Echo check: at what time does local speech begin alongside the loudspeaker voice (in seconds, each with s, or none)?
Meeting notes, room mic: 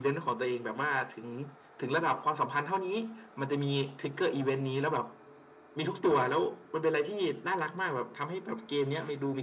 none